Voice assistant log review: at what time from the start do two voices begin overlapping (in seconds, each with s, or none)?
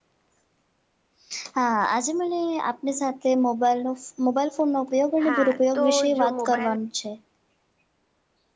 5.2 s